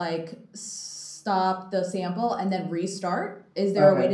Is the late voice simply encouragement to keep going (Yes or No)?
Yes